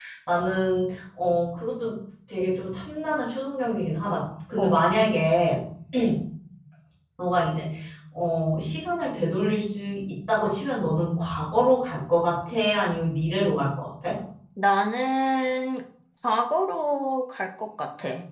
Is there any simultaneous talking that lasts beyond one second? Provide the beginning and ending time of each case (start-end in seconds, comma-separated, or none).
none